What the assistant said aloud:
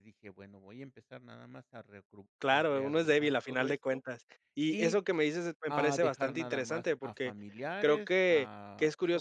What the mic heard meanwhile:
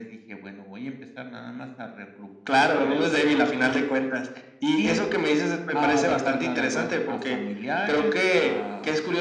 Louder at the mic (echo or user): echo